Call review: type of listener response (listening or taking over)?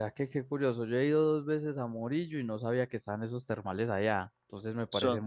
listening